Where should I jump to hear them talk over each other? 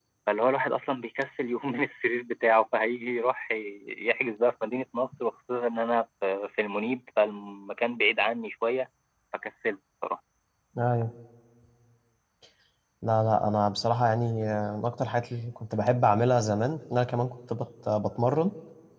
none

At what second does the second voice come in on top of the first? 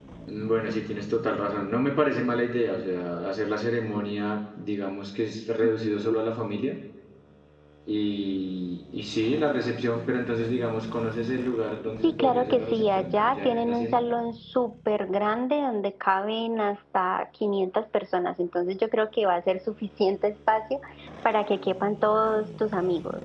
12.0 s

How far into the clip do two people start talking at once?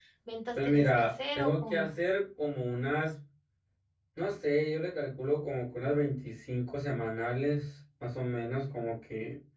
0.6 s

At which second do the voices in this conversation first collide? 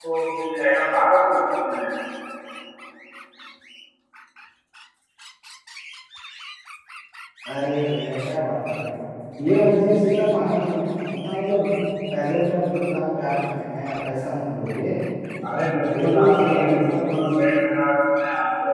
16.0 s

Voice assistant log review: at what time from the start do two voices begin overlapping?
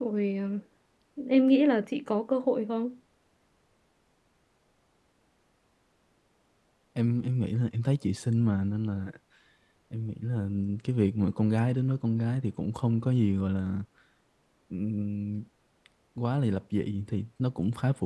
none

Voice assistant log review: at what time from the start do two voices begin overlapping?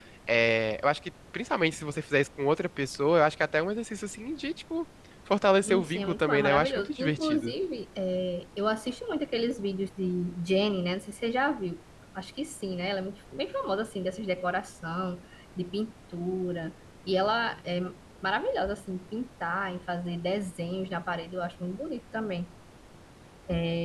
5.6 s

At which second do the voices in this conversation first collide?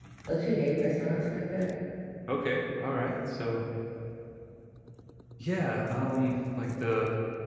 none

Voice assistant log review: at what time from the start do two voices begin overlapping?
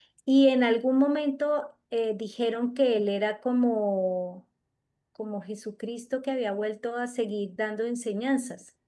none

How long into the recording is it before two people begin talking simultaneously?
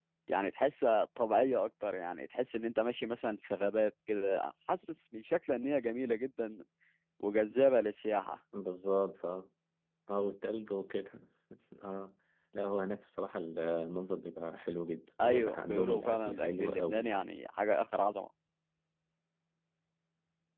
15.2 s

